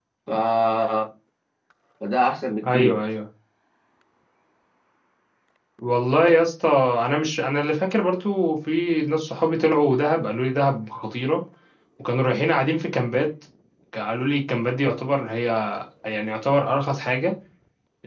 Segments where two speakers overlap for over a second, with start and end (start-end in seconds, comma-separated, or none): none